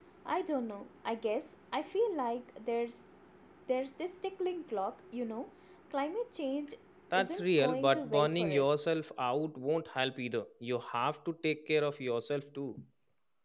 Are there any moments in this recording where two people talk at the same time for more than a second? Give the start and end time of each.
7.1-8.7

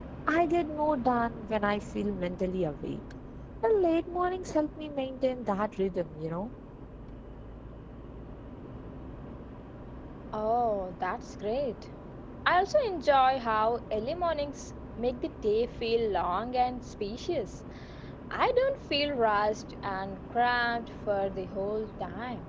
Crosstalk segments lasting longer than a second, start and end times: none

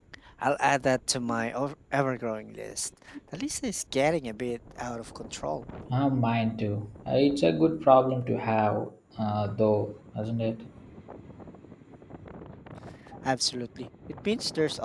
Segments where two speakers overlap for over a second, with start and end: none

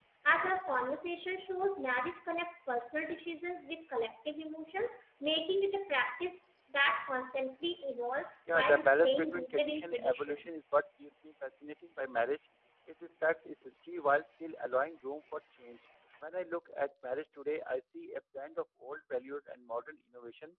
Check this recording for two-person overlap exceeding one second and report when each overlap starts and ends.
8.5-10.5

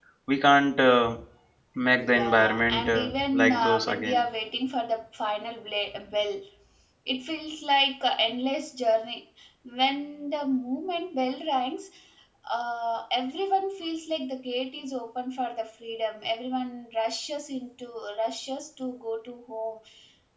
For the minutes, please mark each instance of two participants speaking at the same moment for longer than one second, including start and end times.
2.0-4.2

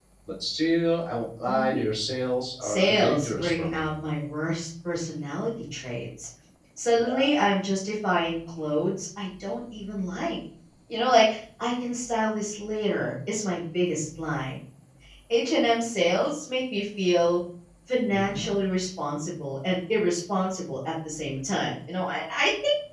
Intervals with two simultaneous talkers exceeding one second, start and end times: 2.6-3.9

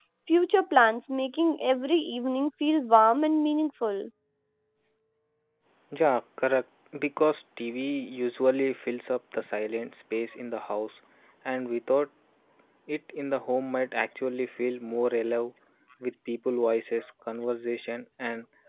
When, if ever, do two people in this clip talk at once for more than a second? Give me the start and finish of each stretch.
none

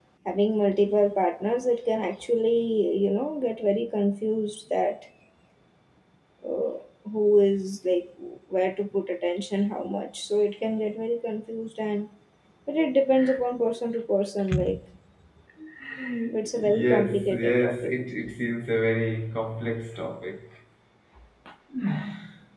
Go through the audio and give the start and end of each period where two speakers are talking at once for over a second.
16.6-17.9

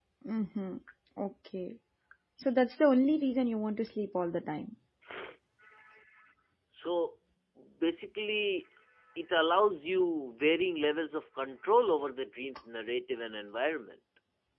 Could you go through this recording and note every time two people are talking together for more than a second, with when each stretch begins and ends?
none

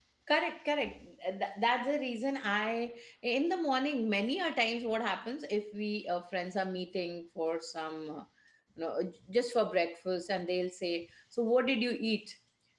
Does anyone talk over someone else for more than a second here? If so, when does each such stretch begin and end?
none

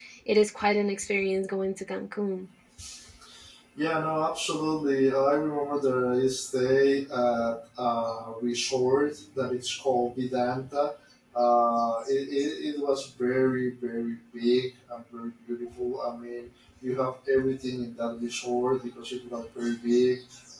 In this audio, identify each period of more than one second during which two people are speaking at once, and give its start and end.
none

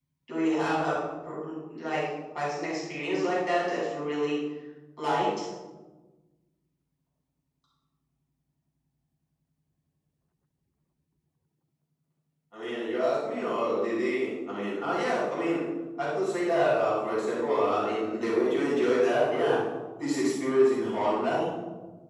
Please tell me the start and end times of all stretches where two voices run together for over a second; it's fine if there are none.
none

